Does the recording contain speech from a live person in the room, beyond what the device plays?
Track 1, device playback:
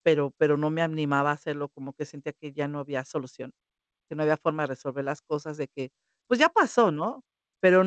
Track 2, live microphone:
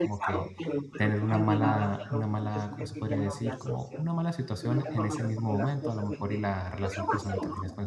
Yes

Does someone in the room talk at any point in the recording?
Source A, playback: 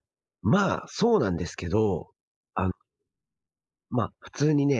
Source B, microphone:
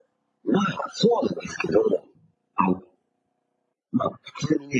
No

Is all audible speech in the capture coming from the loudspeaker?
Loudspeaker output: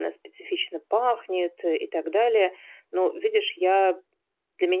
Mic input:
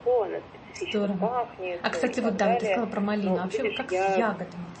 No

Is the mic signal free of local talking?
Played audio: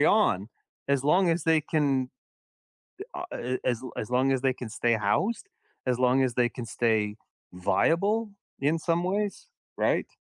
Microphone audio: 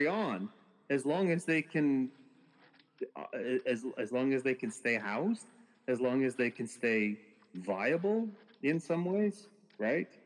Yes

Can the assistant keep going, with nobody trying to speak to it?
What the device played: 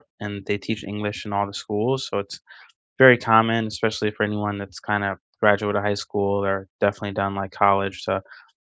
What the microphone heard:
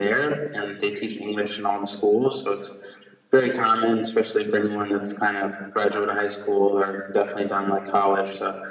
Yes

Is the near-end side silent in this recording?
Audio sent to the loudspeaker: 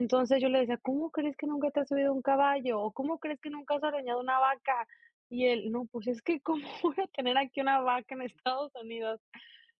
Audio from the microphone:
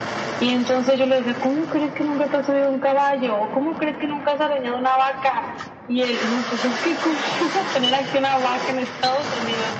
Yes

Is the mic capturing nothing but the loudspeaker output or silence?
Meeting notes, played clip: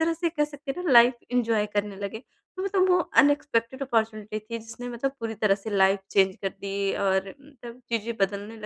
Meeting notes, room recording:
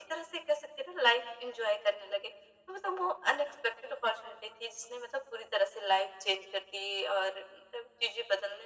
Yes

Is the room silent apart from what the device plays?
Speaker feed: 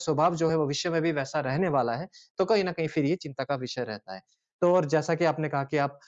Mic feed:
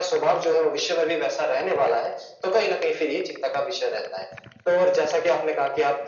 Yes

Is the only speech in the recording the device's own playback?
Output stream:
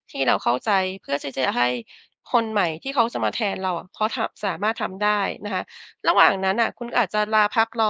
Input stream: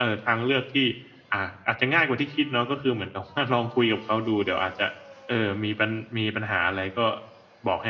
No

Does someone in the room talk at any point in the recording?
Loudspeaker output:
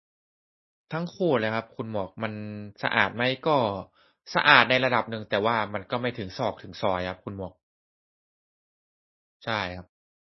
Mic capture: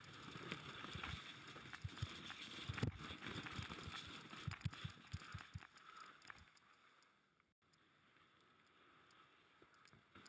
No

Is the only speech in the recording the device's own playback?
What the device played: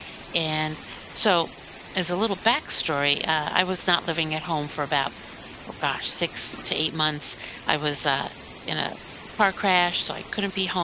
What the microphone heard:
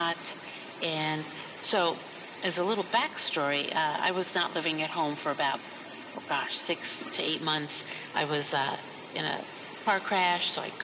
Yes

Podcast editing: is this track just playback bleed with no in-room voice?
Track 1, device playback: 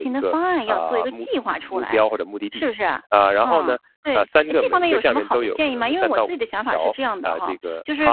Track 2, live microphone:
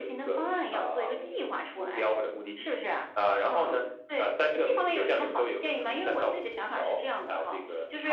Yes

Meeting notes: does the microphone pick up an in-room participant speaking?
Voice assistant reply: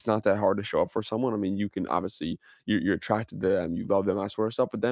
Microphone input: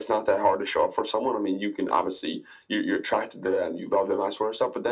No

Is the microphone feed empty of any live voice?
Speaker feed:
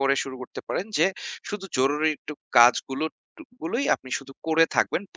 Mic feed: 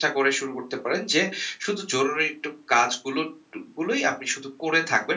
Yes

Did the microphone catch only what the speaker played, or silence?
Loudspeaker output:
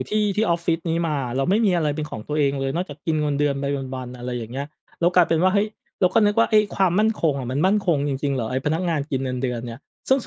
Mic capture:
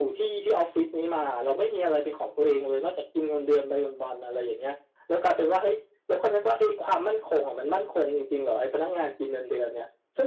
Yes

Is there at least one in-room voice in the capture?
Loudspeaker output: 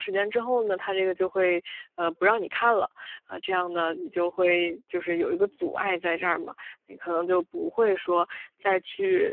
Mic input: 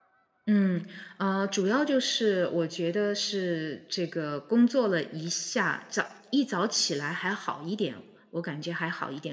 Yes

